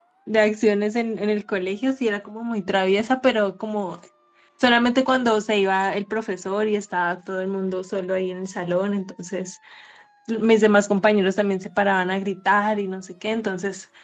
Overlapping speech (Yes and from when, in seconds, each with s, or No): No